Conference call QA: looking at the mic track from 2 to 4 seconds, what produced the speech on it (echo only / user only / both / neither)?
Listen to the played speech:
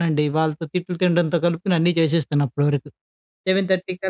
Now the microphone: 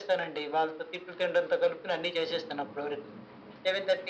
echo only